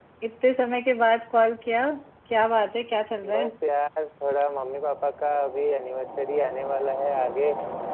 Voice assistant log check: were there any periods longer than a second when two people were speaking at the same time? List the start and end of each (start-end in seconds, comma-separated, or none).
none